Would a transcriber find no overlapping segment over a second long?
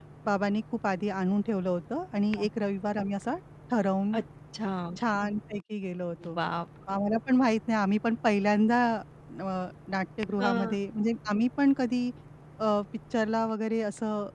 Yes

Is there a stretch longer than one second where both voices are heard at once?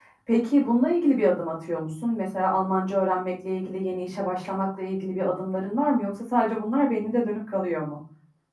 No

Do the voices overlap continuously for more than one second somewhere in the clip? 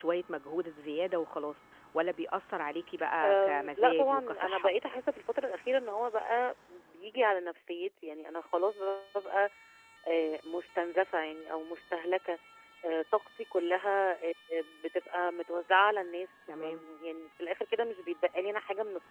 Yes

